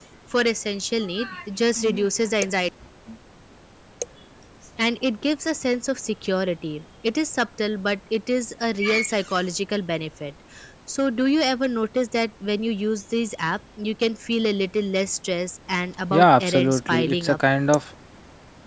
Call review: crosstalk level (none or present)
present